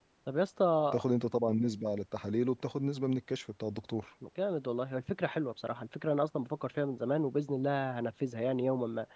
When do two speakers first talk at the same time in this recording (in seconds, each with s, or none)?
none